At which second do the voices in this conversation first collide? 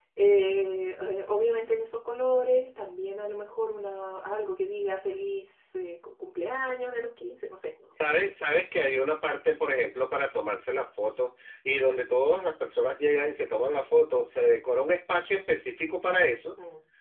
none

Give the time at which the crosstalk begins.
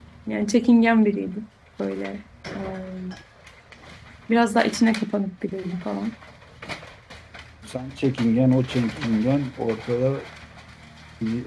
none

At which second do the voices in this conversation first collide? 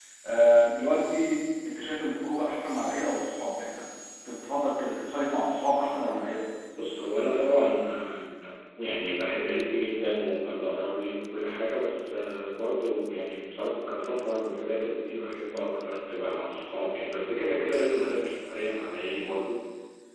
none

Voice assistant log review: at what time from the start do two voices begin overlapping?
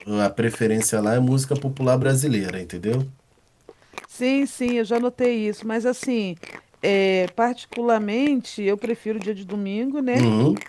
none

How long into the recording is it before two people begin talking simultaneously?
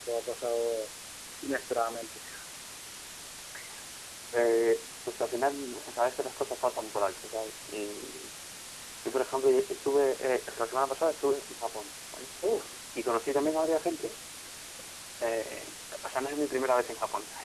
none

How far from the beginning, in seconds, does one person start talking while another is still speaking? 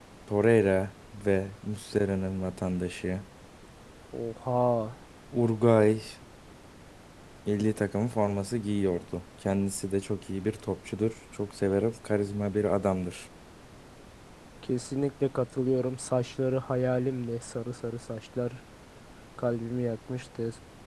none

